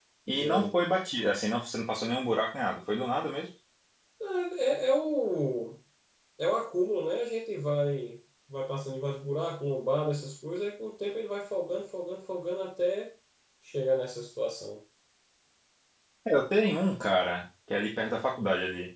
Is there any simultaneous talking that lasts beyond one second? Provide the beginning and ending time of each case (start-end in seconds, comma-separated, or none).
none